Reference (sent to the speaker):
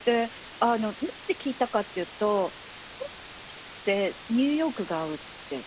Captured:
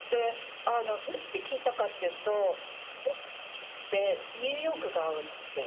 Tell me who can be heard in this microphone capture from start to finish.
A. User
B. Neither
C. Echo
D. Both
C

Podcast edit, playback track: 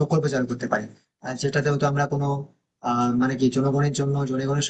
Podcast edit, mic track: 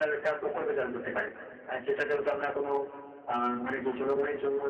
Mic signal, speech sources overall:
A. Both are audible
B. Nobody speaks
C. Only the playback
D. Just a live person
C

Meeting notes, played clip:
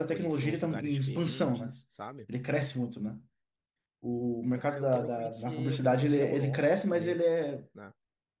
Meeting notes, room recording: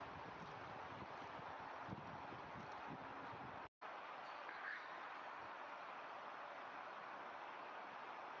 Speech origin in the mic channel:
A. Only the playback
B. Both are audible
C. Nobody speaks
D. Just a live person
C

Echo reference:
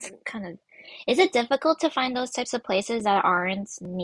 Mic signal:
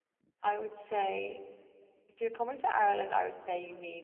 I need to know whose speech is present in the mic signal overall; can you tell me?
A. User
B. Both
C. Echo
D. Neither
A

